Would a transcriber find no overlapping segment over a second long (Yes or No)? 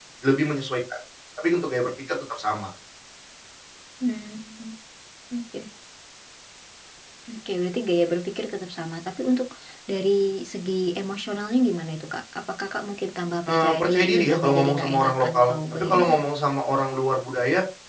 No